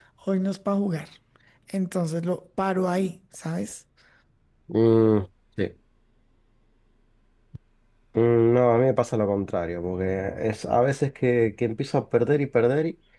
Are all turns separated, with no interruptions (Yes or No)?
Yes